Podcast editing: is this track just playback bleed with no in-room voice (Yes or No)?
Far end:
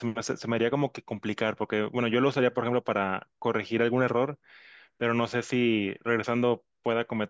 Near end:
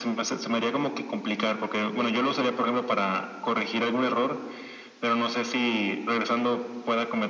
Yes